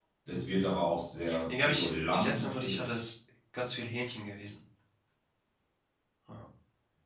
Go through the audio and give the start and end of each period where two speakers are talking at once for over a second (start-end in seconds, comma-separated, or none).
1.5-3.0